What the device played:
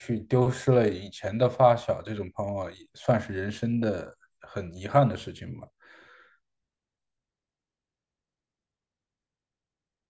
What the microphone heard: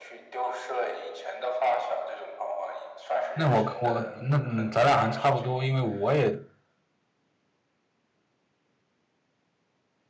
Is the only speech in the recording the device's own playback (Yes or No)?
No